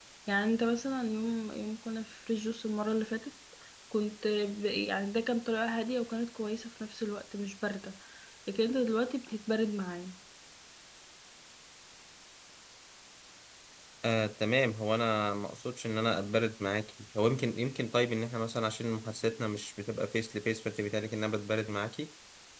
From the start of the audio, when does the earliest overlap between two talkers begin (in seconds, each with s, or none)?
none